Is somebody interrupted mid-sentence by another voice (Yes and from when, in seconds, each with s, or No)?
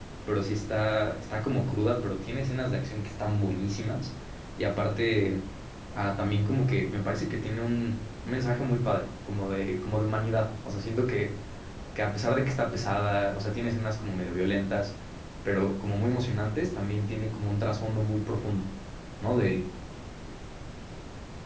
No